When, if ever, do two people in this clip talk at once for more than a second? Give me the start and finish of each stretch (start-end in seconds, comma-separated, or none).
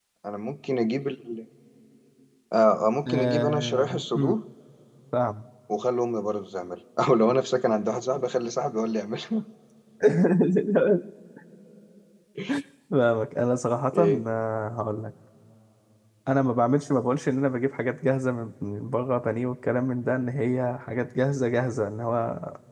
3.1-4.4